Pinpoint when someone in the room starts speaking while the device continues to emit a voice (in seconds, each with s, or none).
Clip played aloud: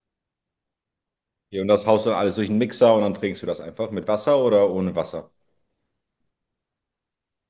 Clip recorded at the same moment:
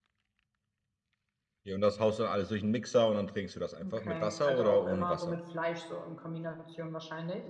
3.8 s